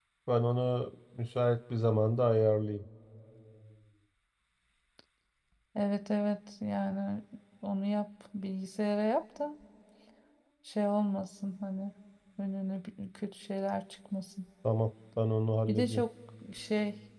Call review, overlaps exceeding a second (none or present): none